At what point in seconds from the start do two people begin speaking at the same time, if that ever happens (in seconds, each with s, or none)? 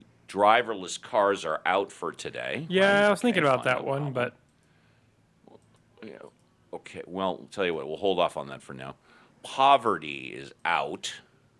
2.7 s